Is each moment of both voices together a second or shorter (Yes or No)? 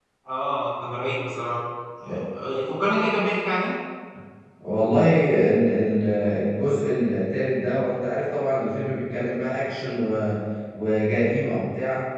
Yes